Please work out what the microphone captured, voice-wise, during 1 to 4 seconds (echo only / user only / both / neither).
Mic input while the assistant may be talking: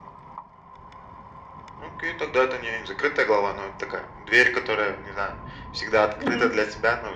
echo only